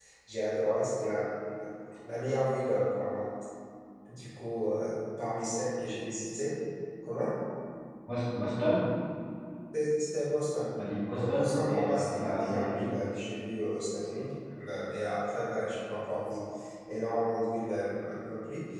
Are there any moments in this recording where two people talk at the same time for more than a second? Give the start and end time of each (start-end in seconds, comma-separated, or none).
11.2-12.9